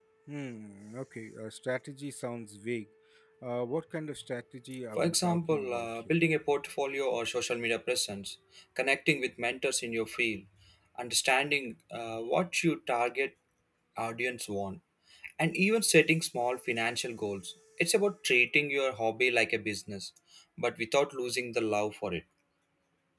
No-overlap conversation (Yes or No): No